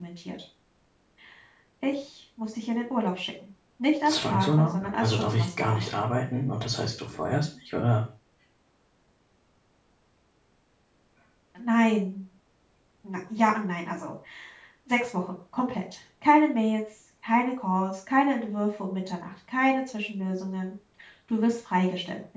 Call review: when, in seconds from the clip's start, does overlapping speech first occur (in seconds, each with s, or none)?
4.1 s